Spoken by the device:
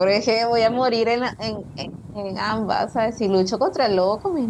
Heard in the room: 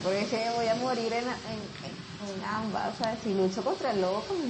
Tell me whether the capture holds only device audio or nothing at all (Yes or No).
Yes